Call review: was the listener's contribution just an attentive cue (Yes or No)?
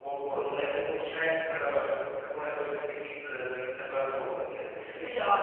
No